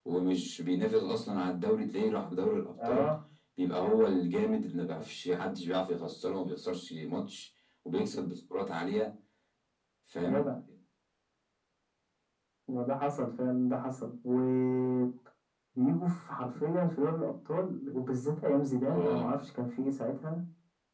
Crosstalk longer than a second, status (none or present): none